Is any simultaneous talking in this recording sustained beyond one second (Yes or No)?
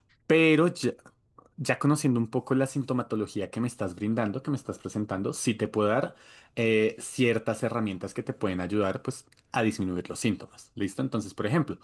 No